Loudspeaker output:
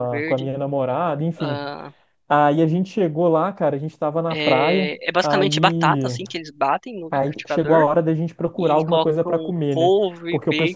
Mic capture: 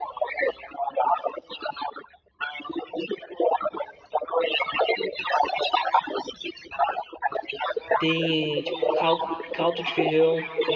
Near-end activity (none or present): present